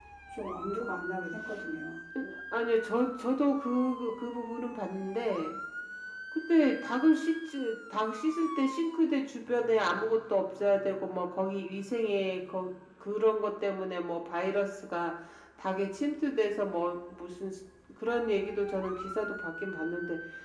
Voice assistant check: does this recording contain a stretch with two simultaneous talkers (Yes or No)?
No